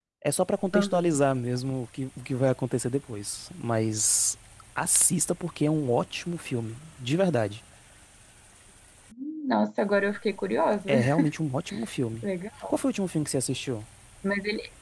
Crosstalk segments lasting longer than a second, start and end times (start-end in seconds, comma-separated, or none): none